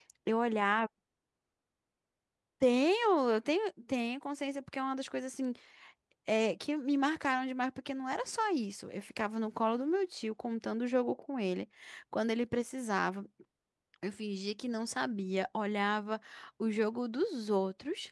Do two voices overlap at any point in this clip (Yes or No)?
No